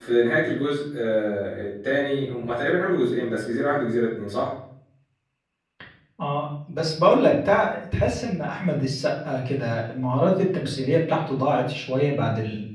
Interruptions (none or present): none